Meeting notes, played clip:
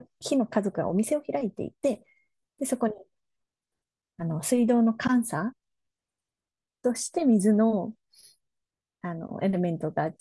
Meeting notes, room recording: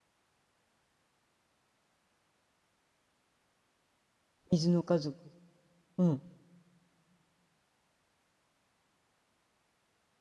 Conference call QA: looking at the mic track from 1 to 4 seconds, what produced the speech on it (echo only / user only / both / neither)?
neither